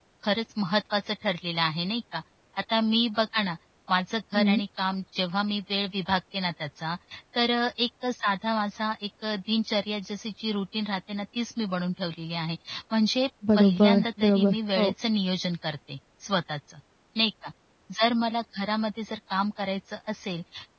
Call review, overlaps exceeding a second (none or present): present